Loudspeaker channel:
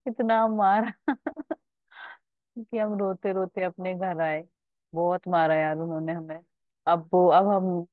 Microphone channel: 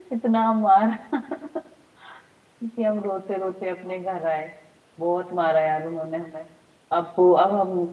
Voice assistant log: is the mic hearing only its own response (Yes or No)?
Yes